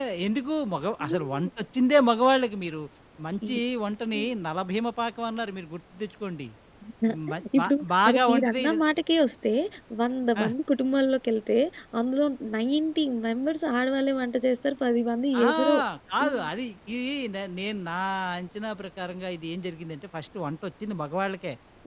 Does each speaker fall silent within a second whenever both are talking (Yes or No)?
No